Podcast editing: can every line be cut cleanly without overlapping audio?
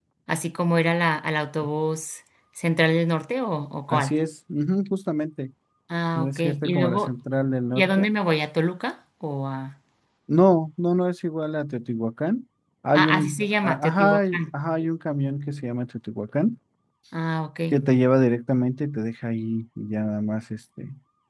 No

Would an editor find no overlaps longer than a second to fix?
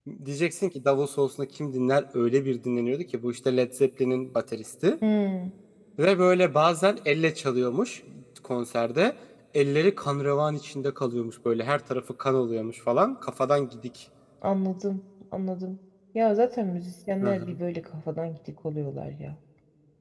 Yes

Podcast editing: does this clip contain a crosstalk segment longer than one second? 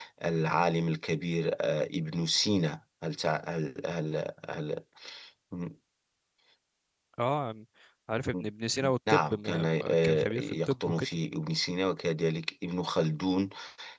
Yes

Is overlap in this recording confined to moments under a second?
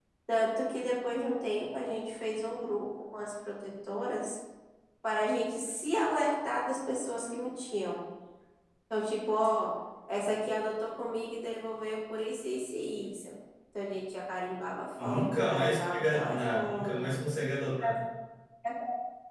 No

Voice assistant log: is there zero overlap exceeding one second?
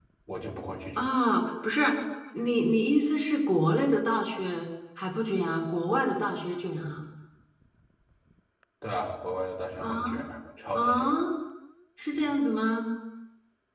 Yes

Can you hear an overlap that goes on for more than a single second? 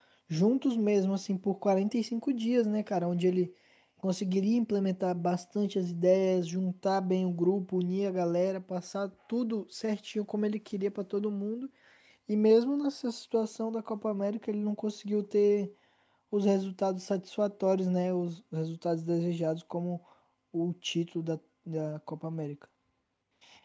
No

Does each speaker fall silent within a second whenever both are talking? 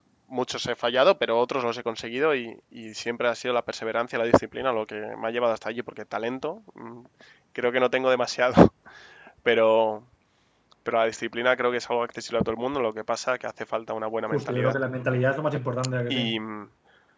Yes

